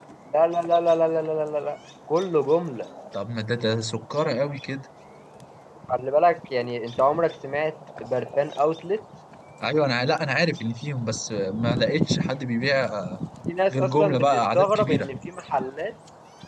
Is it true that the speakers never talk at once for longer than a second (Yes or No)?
No